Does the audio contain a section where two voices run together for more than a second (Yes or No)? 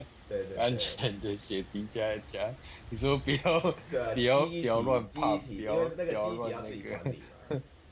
Yes